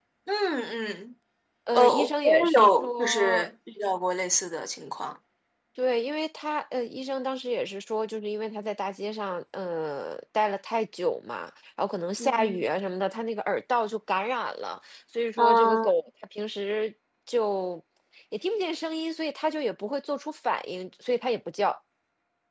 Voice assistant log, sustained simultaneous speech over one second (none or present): present